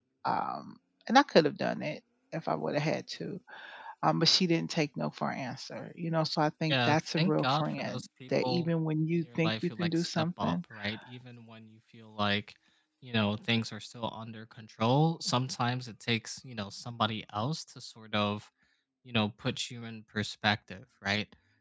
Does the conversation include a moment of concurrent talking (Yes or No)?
Yes